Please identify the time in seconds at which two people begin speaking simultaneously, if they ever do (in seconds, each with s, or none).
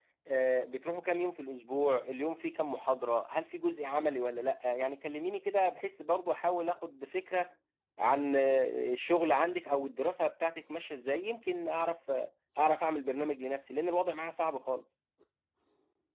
none